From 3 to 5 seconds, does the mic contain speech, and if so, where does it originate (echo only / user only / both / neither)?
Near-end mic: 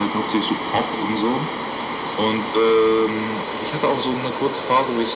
echo only